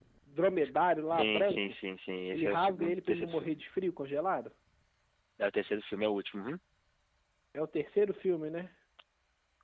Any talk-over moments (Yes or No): Yes